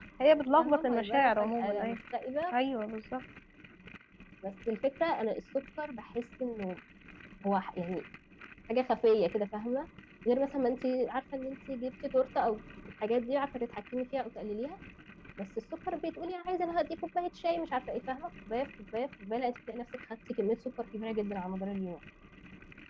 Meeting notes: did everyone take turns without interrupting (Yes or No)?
No